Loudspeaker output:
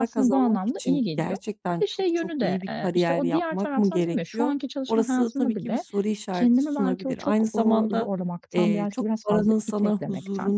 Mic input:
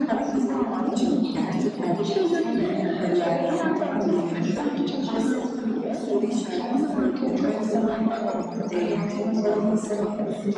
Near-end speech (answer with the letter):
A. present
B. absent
A